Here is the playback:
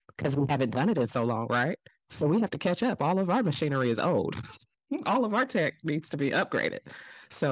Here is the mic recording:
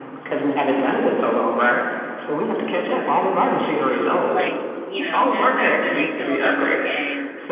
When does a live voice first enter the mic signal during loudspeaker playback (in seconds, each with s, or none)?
4.2 s